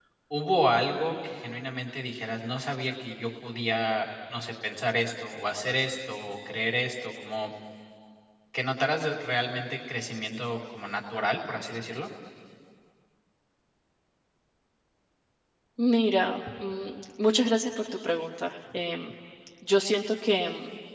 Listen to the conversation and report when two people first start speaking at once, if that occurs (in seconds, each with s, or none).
none